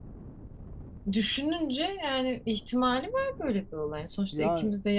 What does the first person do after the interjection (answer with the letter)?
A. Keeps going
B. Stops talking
A